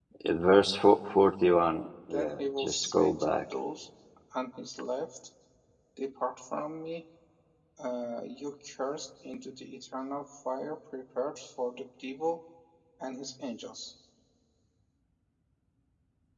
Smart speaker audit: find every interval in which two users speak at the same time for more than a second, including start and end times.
2.1-3.3

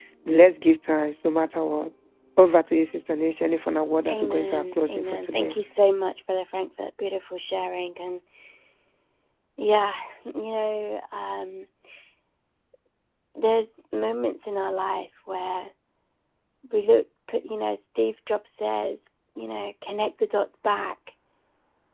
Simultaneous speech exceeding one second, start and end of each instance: 4.1-5.6

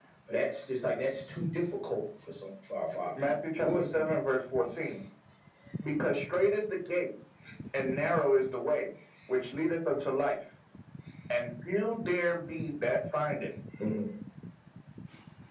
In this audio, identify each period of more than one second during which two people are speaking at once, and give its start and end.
3.2-4.4

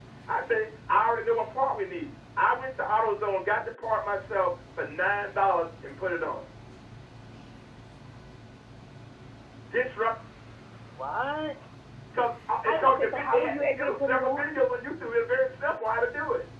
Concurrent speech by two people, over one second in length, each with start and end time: 12.7-14.5

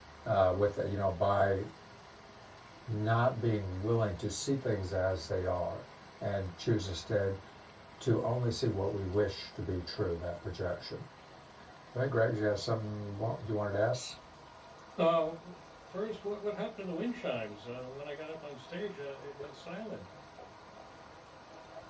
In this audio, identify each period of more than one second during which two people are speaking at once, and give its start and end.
none

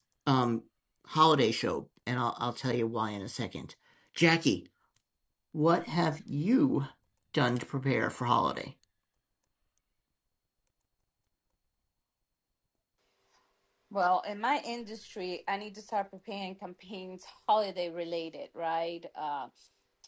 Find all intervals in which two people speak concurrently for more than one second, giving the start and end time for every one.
none

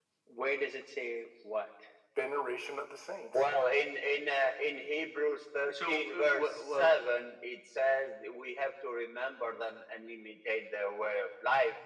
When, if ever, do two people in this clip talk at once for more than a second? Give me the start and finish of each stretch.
5.9-7.1

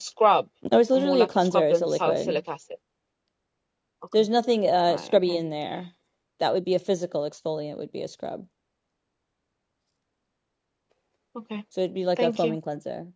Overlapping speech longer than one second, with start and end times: 0.9-2.4

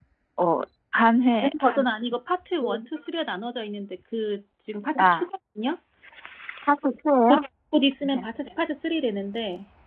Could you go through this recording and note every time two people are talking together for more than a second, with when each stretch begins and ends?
none

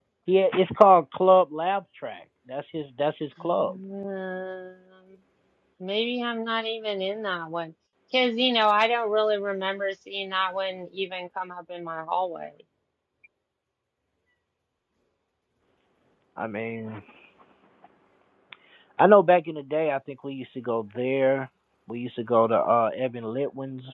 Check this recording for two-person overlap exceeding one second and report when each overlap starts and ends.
none

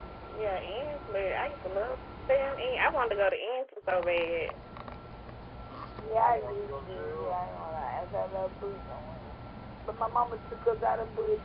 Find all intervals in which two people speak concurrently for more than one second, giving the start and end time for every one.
6.0-7.4

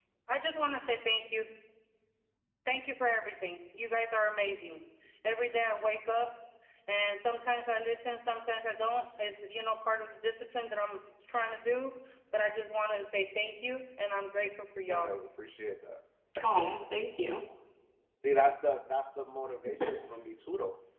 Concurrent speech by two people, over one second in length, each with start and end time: none

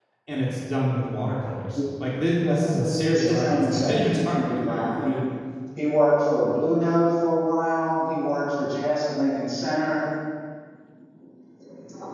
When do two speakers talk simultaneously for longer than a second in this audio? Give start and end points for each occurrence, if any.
2.4-5.2

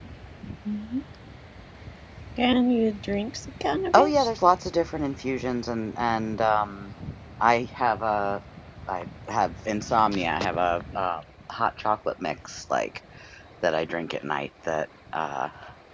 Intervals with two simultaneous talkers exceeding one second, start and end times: none

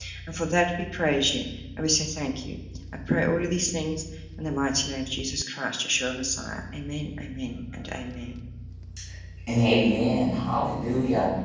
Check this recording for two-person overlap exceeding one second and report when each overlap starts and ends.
none

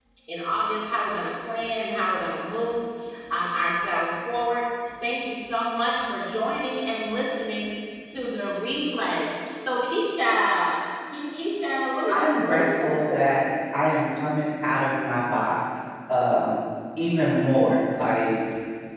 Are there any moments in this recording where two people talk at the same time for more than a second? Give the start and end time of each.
12.1-13.4

